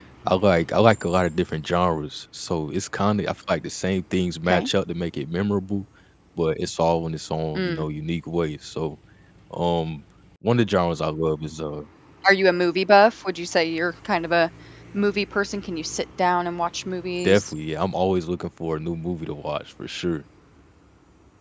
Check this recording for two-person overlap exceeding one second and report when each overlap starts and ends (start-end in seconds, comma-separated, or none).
none